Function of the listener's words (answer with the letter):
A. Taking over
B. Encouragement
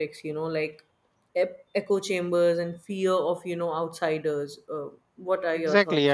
A